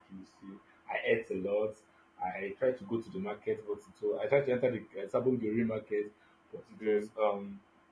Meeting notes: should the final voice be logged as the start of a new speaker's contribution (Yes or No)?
No